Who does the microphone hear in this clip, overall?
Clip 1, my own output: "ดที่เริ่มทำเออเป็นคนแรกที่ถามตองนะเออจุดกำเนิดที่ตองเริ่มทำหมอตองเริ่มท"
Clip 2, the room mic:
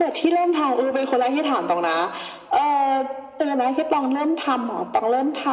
echo only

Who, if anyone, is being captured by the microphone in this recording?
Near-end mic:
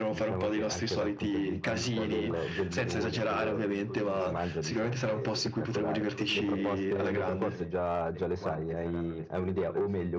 both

